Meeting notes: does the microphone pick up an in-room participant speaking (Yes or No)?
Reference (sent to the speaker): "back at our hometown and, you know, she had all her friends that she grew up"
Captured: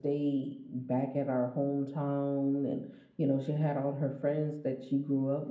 No